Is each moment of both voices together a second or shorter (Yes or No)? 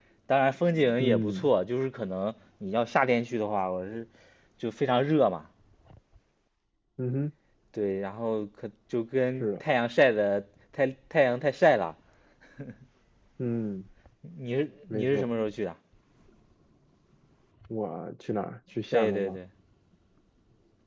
Yes